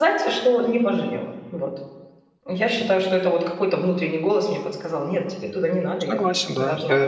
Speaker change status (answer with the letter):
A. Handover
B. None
A